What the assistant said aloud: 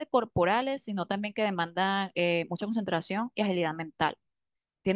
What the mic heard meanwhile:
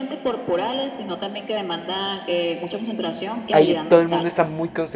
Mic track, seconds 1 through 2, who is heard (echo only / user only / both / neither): echo only